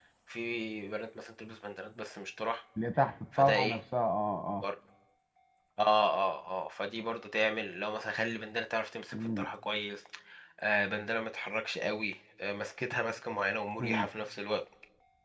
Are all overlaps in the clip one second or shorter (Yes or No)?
Yes